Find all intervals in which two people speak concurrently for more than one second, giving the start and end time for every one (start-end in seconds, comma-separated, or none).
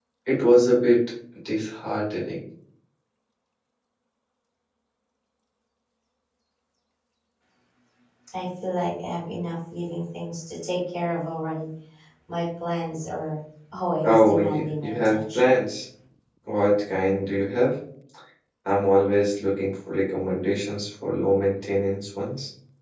14.0-15.5